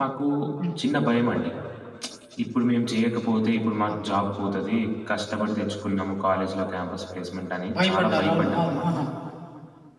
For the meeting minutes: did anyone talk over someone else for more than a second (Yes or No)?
Yes